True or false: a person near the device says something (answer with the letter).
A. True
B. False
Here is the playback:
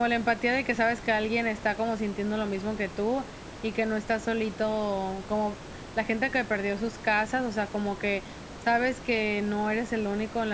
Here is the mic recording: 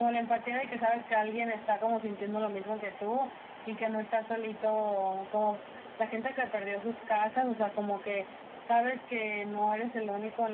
B